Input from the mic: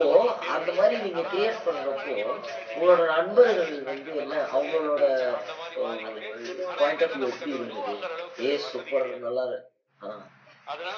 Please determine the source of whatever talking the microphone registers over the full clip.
both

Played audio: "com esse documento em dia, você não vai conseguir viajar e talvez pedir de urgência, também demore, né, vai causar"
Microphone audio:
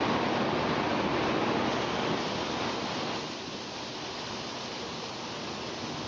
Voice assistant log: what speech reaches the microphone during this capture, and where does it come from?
neither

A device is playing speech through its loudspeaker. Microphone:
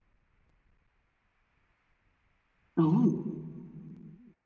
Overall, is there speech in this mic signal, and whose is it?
user only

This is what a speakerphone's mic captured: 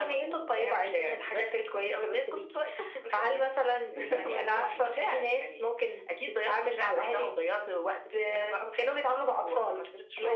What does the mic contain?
echo only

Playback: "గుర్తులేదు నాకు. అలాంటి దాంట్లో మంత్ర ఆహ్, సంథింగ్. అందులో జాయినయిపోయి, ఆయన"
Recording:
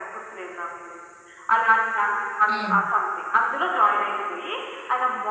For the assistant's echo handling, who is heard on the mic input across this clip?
both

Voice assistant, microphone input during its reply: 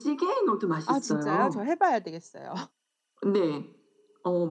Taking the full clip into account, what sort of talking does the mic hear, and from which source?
both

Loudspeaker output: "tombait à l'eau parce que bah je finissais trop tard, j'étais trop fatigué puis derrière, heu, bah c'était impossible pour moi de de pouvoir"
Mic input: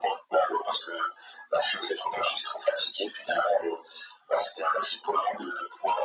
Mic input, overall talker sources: echo only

